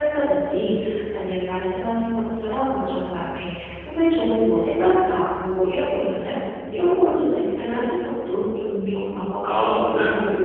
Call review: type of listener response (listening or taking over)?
taking over